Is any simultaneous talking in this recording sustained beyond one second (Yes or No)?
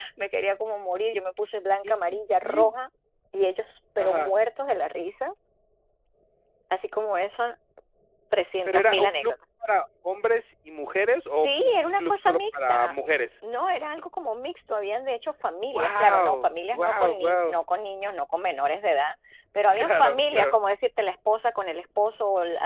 Yes